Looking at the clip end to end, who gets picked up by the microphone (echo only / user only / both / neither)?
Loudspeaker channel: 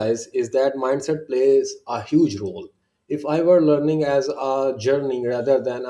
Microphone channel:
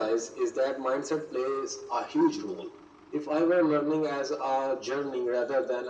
echo only